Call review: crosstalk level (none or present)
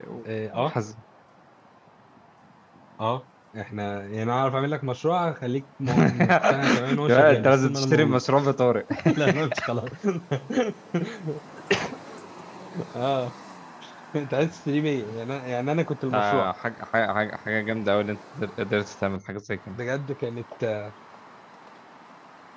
present